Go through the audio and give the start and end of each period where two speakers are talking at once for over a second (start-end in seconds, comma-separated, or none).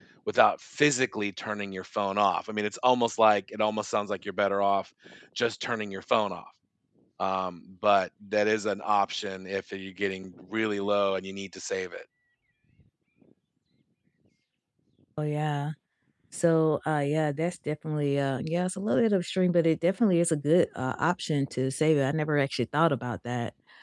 none